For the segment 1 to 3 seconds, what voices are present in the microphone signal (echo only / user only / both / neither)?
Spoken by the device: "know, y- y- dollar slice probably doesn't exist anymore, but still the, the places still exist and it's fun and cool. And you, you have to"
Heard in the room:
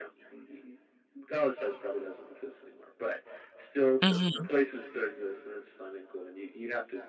echo only